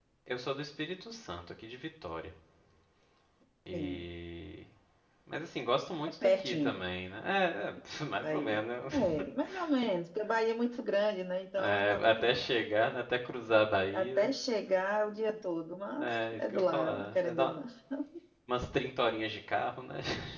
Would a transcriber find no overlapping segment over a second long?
No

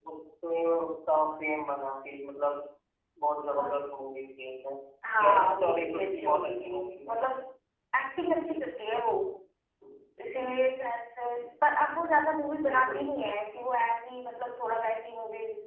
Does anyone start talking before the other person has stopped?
Yes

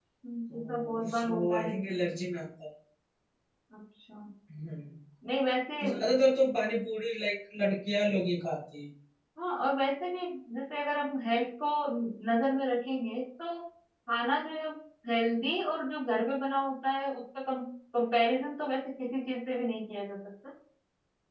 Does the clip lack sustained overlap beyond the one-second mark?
No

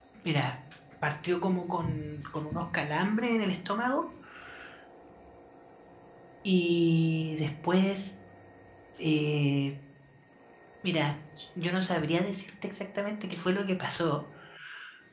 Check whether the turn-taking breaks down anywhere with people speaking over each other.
No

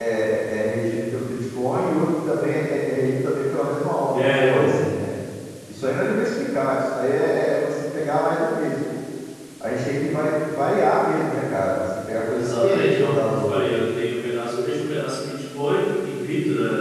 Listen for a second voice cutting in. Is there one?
Yes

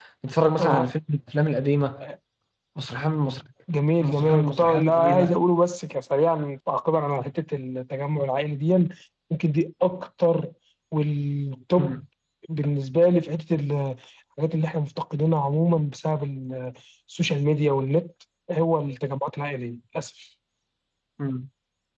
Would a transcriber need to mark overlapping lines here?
Yes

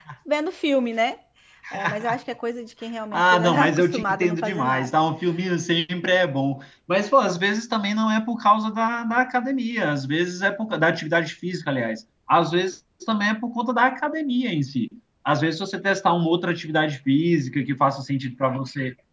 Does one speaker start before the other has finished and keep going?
Yes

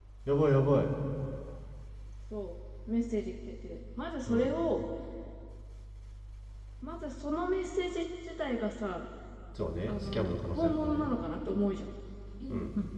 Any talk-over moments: Yes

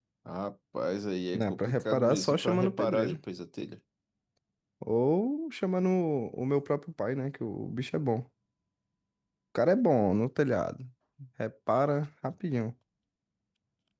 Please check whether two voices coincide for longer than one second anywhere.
Yes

